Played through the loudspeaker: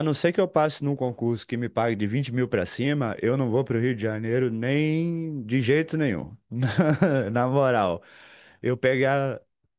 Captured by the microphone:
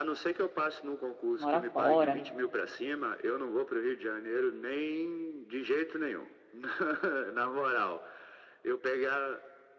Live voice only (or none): mora fora.